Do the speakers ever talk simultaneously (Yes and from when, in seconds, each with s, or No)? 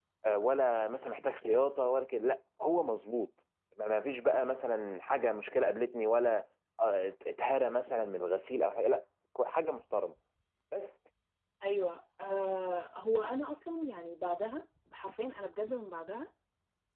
No